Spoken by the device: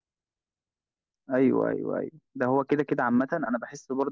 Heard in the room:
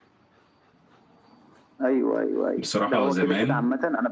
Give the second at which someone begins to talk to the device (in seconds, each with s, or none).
2.6 s